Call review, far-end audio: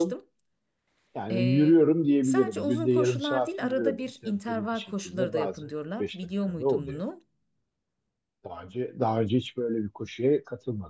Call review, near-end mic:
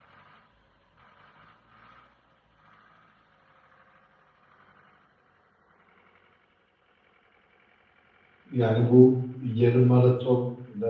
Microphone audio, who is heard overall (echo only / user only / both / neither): user only